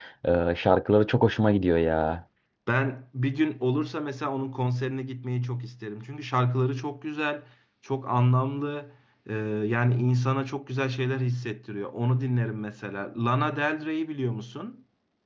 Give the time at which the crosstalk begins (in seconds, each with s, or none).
none